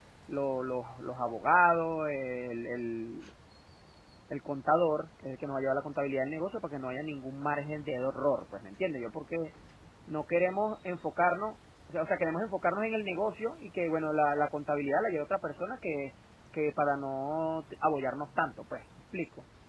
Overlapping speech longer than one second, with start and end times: none

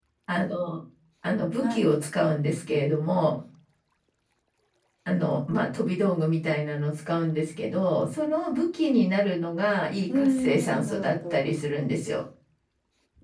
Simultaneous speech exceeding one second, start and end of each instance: 10.1-11.4

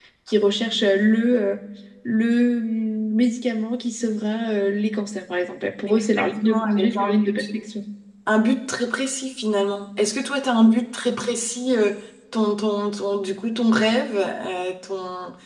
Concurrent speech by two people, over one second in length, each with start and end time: 5.9-7.3

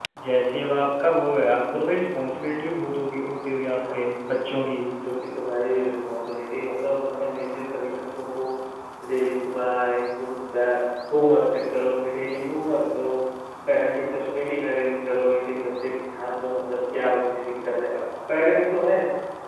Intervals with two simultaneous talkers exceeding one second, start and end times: none

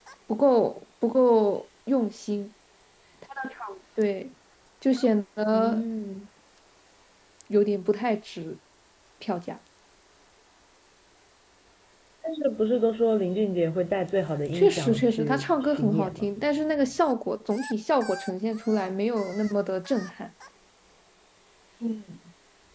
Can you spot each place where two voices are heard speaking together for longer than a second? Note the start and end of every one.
14.5-16.3

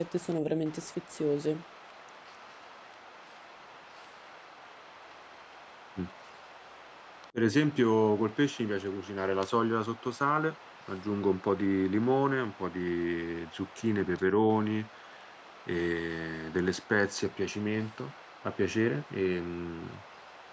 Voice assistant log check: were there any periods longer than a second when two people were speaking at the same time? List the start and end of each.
none

